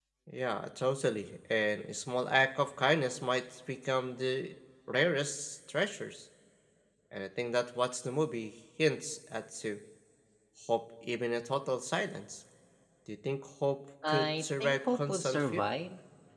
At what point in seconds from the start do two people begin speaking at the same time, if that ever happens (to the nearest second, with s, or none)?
14 s